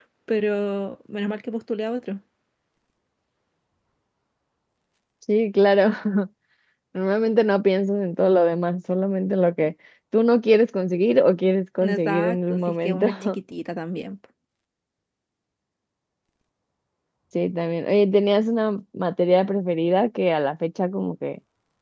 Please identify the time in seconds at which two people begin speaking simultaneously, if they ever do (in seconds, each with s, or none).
11.8 s